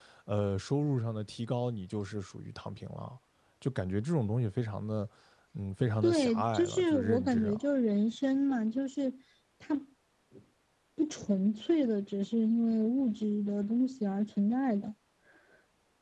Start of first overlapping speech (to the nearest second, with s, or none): 6 s